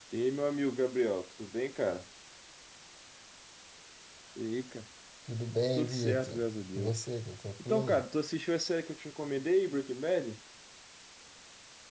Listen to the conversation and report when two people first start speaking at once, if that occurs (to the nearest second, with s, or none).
6 s